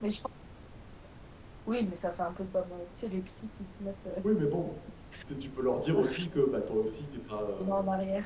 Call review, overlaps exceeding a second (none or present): none